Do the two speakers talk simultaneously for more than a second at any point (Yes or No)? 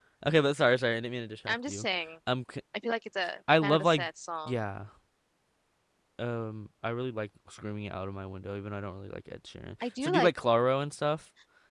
No